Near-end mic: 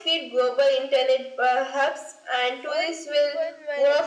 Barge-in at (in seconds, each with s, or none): 2.6 s